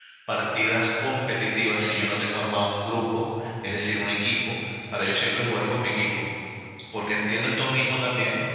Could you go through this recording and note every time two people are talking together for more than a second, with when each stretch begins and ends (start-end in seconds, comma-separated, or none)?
none